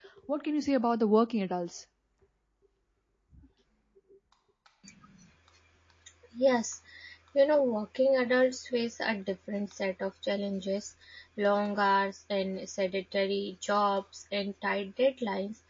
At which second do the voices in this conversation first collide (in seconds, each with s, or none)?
none